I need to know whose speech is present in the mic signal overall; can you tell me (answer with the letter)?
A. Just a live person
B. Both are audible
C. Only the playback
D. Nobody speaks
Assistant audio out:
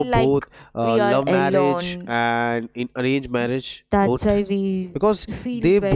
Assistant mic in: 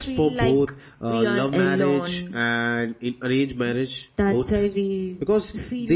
C